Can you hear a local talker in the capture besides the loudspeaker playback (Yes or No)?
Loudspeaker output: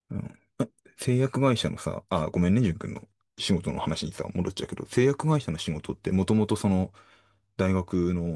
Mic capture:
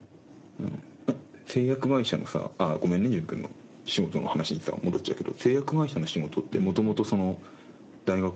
Yes